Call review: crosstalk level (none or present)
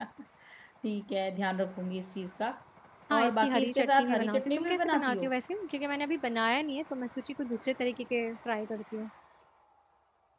present